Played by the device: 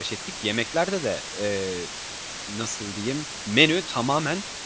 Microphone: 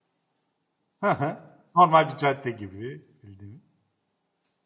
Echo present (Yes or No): No